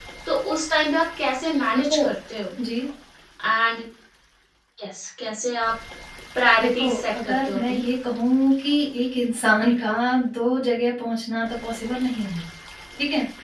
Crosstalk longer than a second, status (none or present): present